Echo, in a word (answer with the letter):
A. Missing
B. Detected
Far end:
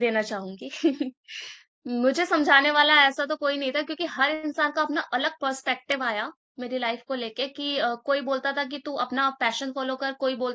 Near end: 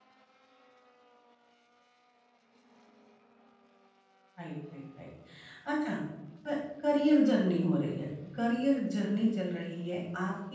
A